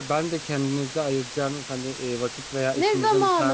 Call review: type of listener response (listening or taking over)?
taking over